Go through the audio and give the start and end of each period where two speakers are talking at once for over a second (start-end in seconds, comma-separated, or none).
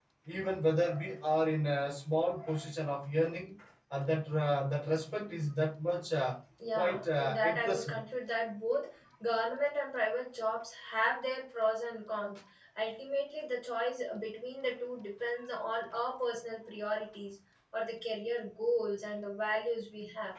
6.8-8.0